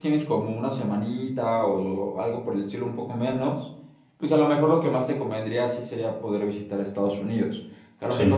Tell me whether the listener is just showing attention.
Yes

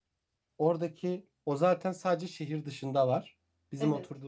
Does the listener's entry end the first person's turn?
No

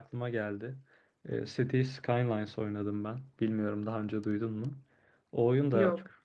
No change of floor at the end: Yes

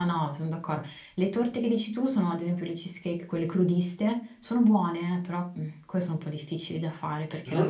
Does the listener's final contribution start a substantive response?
Yes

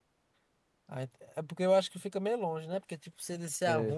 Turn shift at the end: No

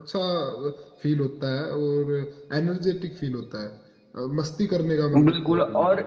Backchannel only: No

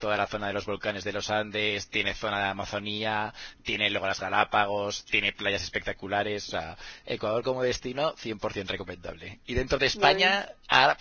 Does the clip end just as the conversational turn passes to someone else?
No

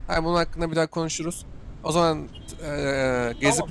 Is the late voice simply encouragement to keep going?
No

